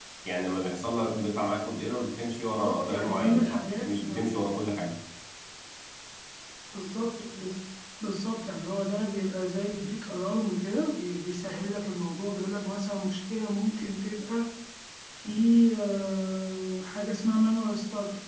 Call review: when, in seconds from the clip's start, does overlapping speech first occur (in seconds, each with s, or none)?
2.6 s